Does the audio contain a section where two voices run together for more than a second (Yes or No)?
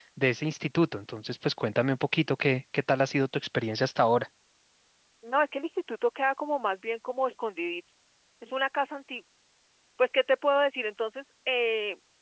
No